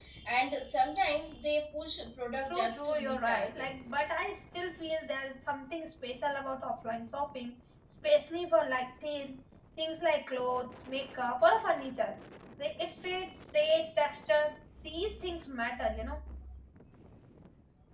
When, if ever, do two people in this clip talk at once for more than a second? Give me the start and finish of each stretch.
2.5-3.7

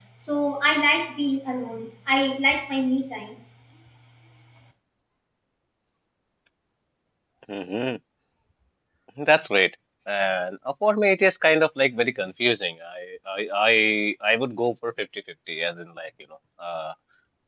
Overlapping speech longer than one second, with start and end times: none

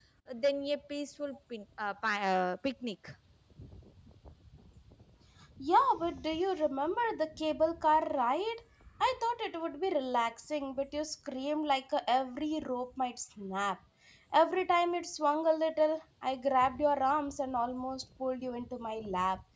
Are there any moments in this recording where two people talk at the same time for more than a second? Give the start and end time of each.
none

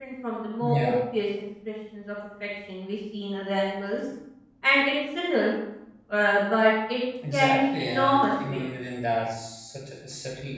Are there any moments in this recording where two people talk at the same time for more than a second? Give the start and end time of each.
7.3-8.7

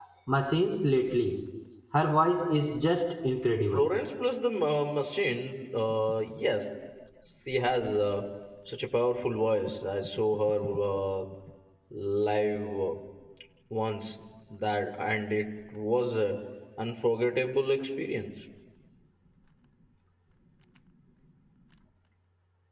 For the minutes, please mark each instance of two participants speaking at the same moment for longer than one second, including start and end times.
none

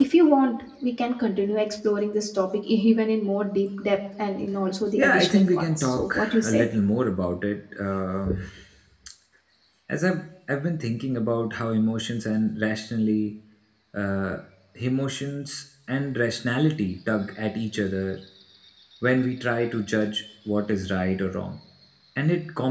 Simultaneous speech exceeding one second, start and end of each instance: 5.0-6.6

